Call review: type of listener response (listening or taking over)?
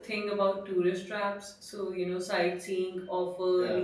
listening